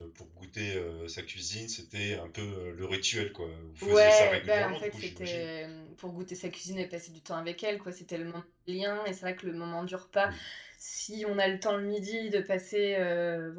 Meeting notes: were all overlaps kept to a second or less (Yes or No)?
No